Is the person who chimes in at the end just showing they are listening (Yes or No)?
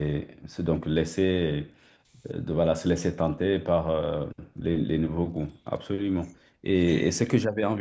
Yes